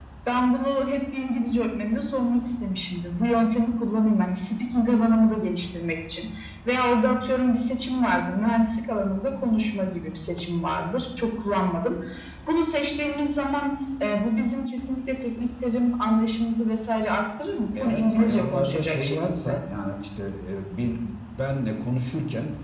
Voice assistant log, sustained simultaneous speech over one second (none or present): present